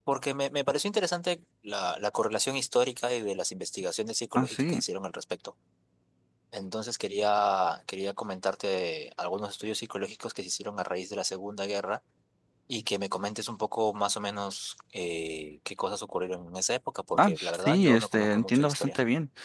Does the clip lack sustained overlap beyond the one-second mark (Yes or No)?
No